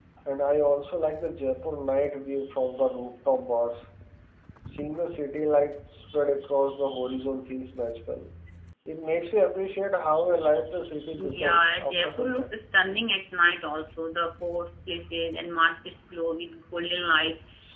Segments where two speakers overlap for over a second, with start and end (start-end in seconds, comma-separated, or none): 11.2-12.5